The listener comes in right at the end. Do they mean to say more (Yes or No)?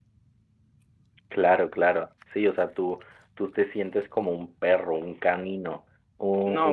Yes